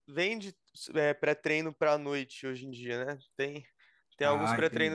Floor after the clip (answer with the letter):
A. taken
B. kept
B